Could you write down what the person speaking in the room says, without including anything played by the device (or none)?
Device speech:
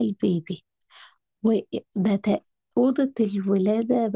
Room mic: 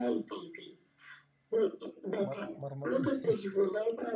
مر... مرمطيس